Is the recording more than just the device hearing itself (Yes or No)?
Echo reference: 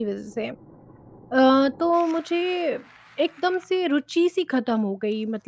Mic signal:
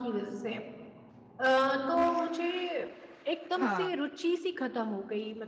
Yes